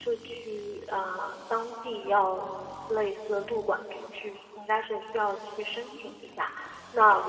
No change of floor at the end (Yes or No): Yes